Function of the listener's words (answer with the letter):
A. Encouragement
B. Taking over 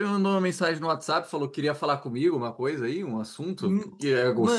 B